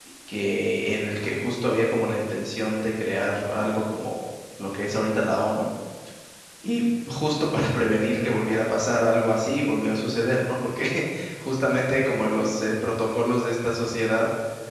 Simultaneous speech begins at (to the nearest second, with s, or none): none